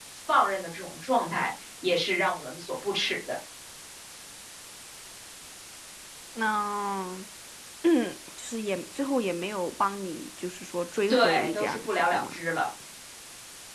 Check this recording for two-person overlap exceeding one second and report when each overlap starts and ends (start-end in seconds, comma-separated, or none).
11.1-12.4